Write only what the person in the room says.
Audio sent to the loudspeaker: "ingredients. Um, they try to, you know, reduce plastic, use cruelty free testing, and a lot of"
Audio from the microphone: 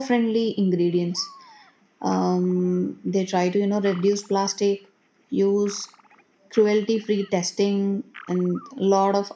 none

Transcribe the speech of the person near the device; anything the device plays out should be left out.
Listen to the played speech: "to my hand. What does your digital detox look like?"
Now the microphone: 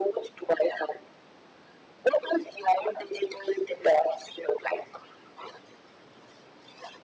none

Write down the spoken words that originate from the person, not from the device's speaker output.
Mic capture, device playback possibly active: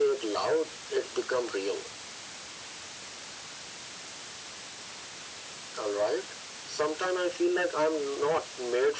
none

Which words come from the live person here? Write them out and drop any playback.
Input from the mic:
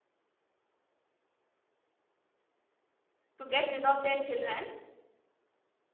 to get rid of their children

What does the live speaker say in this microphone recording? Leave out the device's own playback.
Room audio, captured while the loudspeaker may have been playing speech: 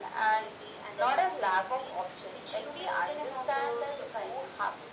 none

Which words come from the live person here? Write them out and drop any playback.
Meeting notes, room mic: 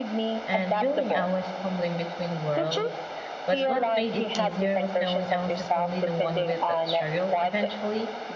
and feeling I was stumbling between worlds. But what made it easier was knowing I wasn't only the one with that struggle. Eventually,

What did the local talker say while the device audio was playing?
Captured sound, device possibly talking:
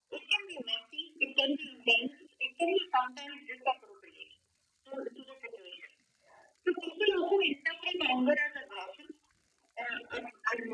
none

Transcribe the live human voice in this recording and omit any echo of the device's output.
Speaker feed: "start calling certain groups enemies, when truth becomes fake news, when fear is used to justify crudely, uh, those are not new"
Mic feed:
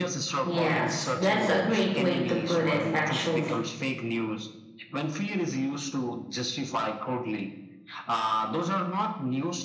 Yes, that's a great way to put it, actually.

